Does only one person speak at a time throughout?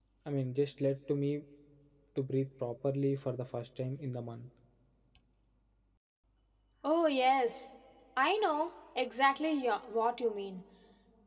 Yes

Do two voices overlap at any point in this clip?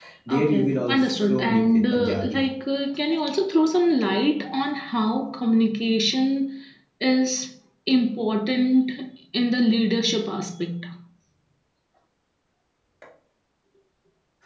Yes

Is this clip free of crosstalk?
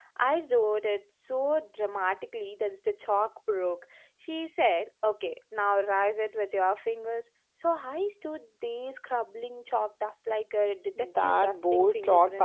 No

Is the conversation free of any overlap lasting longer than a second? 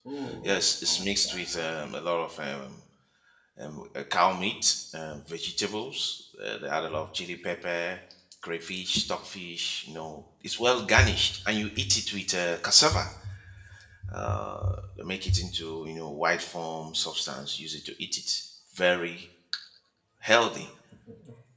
No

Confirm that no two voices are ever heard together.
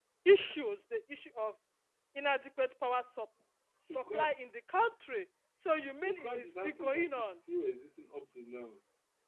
No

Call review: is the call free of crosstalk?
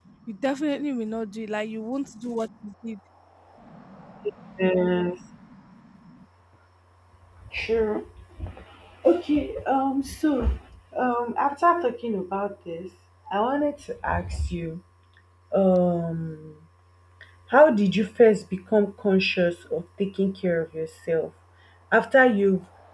Yes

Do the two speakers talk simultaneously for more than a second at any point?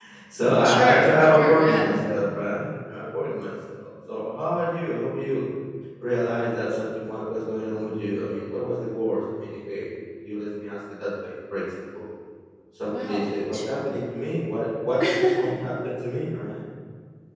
Yes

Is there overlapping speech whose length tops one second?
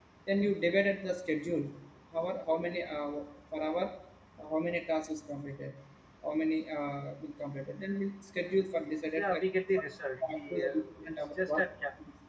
Yes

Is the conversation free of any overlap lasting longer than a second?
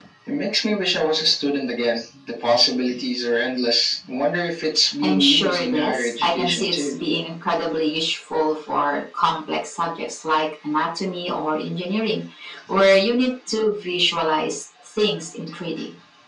No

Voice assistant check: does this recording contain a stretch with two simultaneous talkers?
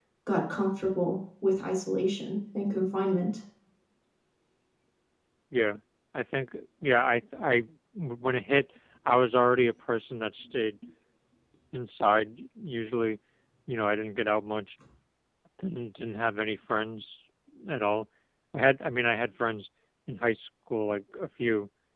No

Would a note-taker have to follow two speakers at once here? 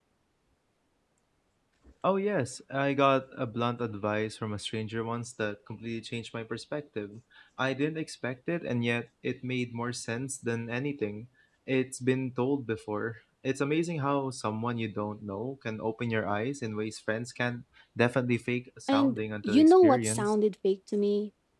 Yes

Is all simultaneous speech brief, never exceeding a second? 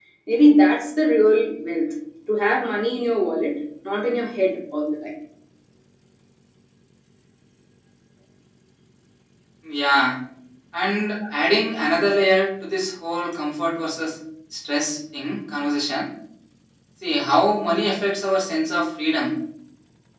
Yes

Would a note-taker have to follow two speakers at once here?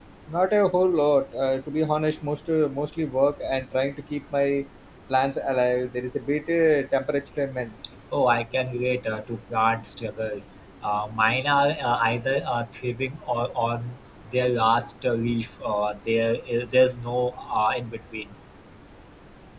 No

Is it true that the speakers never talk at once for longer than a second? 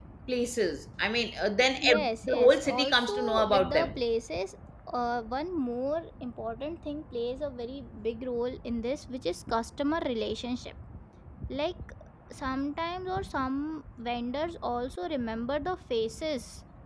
No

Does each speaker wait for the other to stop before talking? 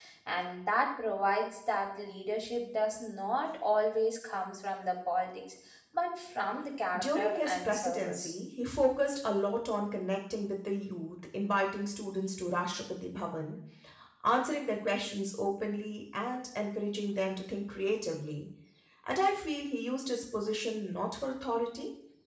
No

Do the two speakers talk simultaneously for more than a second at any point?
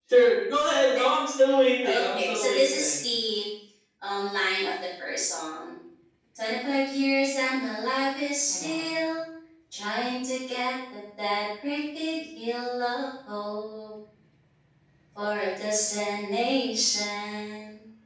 Yes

